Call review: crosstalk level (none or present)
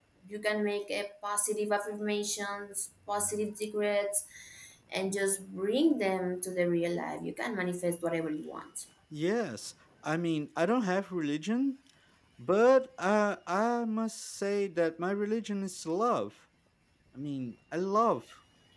none